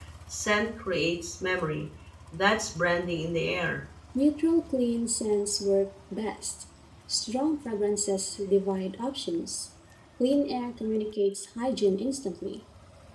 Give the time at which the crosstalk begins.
none

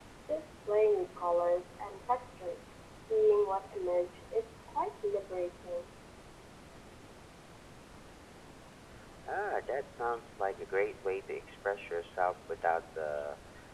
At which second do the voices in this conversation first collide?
none

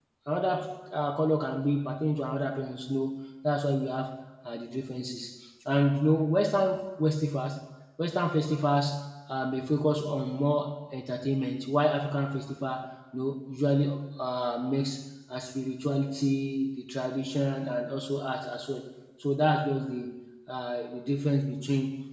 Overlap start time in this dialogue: none

